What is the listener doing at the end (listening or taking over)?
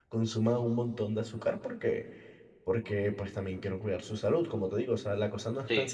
listening